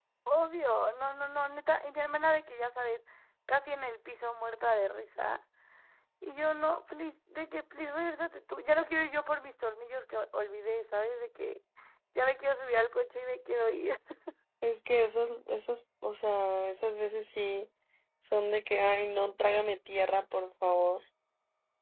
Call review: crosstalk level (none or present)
none